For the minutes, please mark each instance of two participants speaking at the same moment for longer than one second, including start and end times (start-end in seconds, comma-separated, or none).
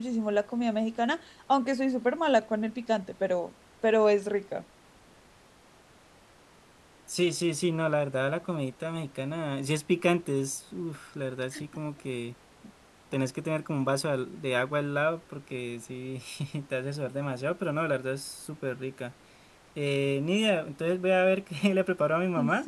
none